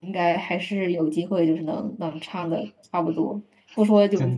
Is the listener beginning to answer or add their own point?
No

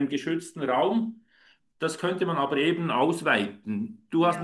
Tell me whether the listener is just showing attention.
Yes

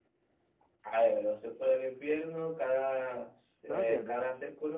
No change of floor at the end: Yes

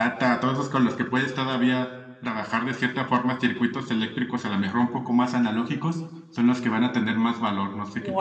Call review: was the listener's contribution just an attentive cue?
No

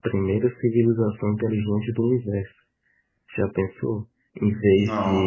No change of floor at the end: Yes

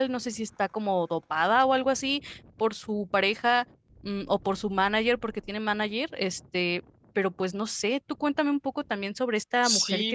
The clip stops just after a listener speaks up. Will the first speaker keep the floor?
No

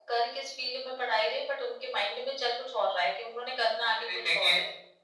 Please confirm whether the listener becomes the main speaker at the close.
Yes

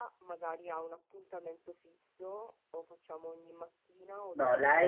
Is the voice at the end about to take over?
Yes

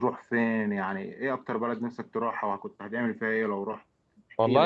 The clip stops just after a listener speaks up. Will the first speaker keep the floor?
No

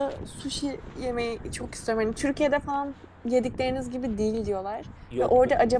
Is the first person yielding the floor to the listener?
No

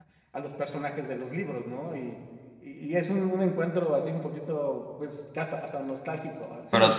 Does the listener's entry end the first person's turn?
Yes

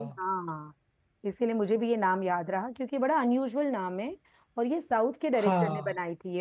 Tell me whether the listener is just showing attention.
Yes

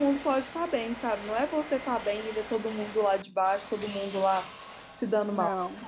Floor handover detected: Yes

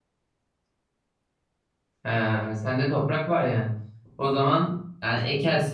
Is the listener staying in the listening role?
Yes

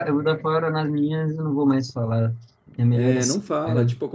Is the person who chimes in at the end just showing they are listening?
No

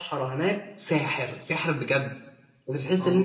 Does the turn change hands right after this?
No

